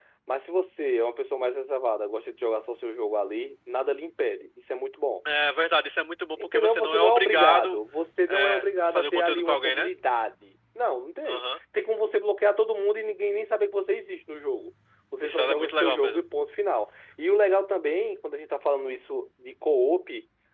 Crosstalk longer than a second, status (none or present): present